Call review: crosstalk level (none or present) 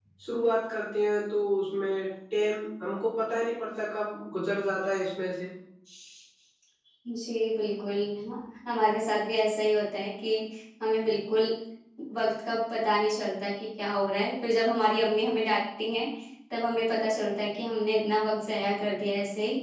none